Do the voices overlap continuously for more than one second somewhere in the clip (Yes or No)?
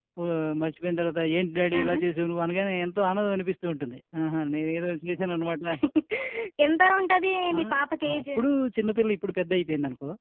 No